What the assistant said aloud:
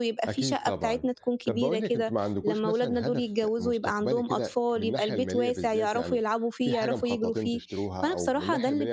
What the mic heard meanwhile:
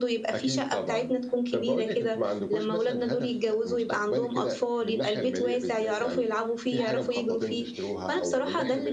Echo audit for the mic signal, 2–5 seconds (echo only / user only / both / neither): echo only